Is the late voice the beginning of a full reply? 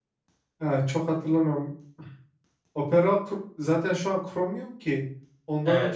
Yes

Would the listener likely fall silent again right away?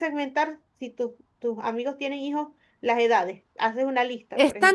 No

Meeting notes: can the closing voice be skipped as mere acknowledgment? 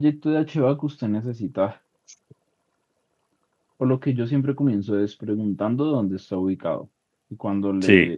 Yes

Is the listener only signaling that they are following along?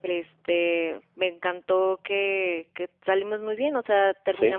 Yes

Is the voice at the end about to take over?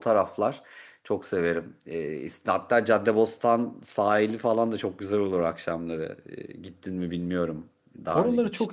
Yes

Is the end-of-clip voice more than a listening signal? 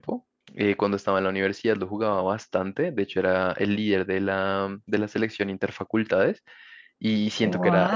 No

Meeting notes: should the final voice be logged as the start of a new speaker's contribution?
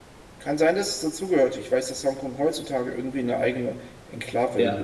Yes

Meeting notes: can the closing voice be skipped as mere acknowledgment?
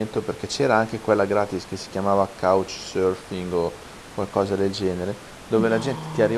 Yes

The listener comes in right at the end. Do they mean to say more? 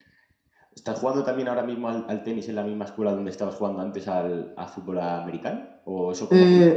No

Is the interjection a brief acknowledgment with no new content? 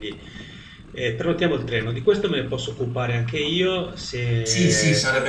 No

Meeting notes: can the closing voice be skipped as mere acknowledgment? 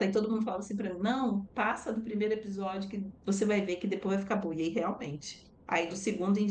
Yes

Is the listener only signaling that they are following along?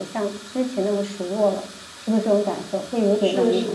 No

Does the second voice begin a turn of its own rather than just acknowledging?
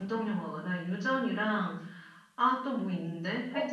Yes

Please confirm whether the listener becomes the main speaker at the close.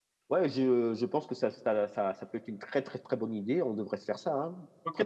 Yes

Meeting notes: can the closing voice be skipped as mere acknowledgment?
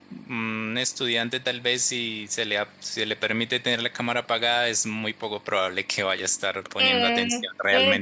No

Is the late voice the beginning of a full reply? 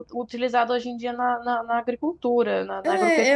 Yes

